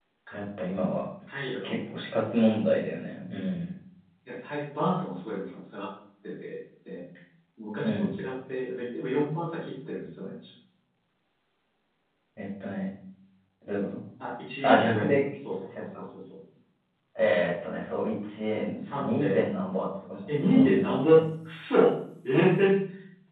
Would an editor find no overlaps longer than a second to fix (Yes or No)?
No